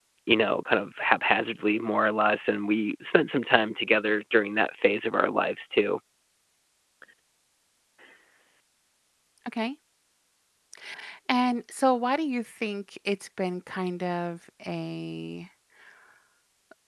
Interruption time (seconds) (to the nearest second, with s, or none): none